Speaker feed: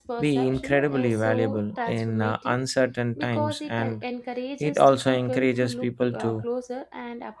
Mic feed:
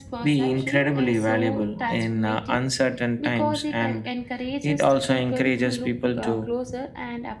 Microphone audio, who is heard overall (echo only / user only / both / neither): echo only